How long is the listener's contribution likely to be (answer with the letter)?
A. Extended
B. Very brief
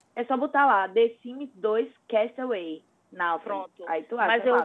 A